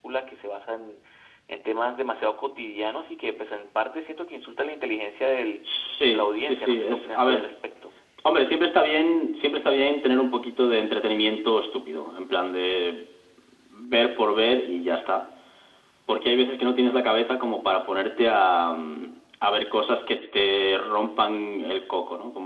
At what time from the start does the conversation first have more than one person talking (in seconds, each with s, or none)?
6.1 s